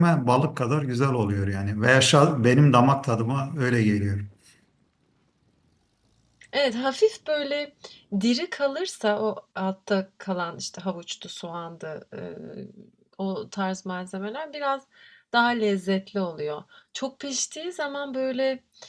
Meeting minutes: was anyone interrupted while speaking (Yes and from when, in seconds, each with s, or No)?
No